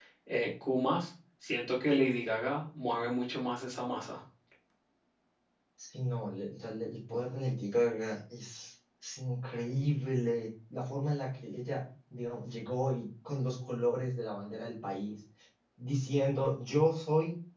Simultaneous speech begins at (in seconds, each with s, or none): none